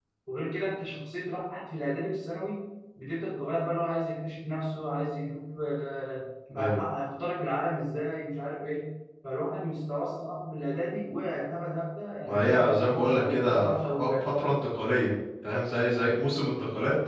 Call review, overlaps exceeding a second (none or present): present